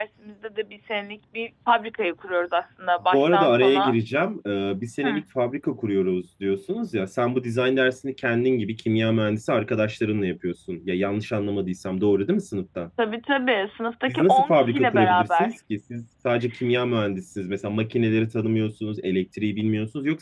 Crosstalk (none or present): present